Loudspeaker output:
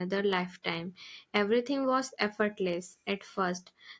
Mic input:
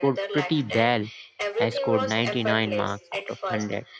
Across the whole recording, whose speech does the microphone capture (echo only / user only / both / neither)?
both